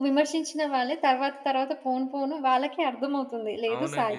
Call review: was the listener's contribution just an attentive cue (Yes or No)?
No